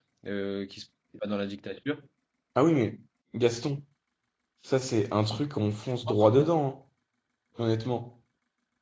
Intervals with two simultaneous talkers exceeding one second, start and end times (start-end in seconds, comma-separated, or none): none